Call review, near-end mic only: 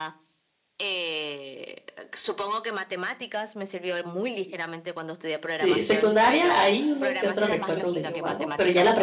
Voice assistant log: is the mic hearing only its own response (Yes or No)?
No